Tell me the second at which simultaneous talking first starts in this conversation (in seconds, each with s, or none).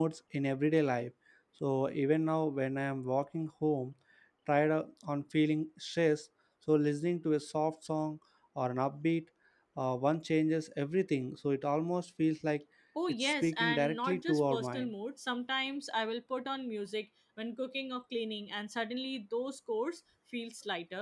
13.2 s